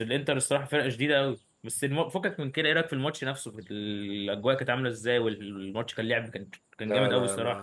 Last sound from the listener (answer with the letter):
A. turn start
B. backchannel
A